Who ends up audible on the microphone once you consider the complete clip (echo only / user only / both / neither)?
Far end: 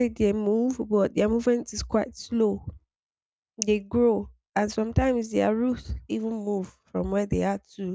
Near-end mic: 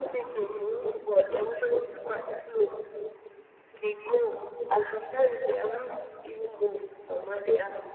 echo only